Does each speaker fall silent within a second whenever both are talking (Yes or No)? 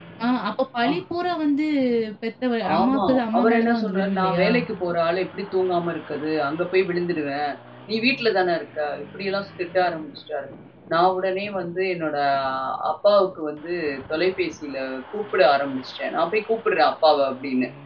No